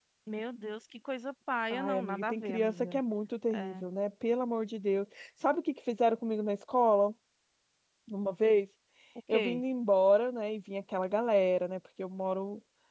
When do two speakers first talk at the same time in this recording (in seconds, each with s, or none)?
1.7 s